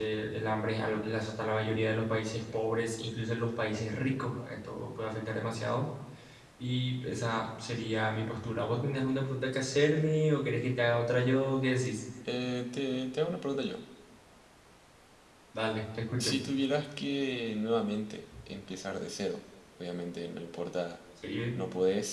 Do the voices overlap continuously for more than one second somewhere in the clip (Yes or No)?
No